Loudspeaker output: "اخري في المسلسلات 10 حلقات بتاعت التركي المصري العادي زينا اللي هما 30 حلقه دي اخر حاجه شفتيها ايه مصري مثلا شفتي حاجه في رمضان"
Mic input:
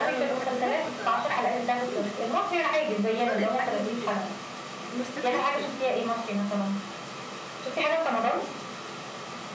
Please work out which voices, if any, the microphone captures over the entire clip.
both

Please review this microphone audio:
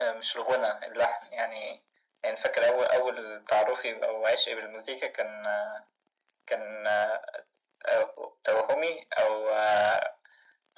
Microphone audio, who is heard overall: echo only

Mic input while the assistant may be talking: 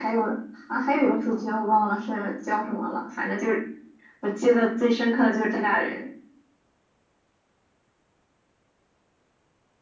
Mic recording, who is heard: echo only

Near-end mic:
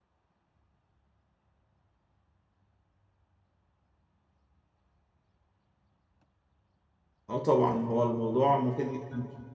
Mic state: user only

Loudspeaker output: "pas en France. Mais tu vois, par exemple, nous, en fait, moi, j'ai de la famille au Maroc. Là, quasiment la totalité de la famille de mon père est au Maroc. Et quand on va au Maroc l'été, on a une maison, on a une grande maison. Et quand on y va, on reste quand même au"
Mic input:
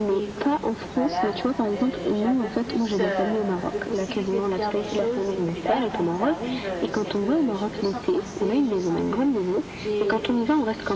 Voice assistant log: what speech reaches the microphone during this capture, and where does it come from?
both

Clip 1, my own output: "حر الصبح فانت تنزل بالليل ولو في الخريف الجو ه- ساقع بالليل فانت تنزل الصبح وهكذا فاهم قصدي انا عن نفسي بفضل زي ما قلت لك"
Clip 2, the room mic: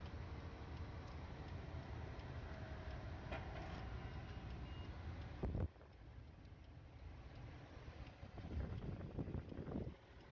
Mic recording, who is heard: neither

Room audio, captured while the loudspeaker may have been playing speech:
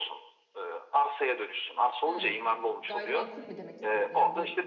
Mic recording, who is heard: both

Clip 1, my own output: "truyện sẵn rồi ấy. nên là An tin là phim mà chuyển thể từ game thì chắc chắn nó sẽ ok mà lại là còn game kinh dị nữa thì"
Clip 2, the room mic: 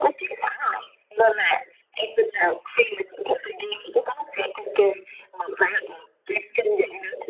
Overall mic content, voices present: echo only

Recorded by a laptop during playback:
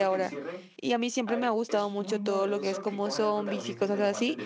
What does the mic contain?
both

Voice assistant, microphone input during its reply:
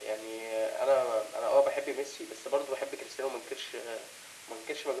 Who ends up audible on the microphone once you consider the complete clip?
echo only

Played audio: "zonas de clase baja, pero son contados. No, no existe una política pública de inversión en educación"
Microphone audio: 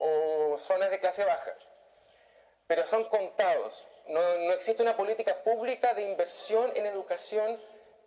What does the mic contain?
echo only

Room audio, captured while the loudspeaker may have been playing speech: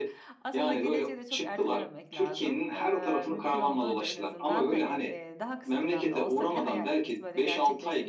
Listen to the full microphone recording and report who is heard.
both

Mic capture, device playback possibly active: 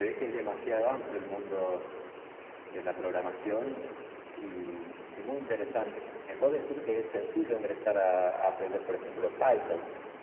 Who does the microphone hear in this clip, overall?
echo only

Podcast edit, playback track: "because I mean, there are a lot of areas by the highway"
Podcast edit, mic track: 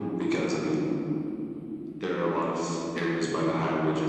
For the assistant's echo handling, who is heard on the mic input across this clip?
echo only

